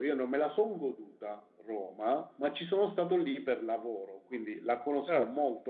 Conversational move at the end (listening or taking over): listening